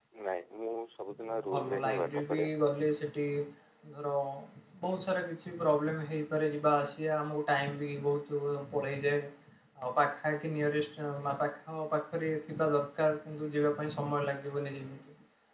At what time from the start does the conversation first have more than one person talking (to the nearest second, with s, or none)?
1 s